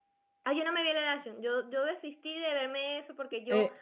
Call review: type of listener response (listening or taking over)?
taking over